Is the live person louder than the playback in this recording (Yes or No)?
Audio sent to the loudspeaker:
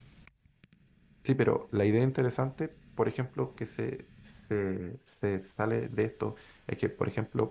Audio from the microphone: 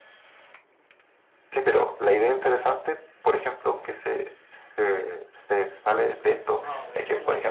No